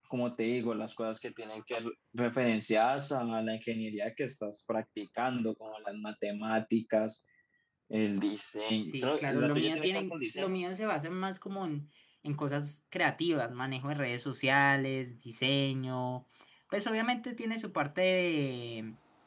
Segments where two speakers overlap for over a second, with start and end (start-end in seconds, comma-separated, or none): 8.8-10.6